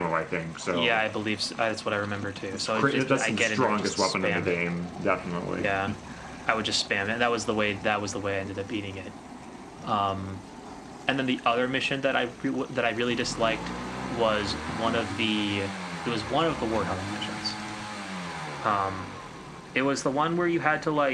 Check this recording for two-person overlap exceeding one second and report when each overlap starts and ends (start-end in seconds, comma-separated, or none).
2.5-4.6